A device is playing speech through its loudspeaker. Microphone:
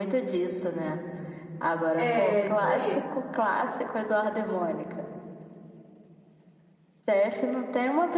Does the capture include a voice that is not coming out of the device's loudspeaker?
Yes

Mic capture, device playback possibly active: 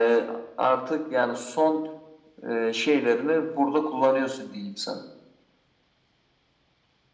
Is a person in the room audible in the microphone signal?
No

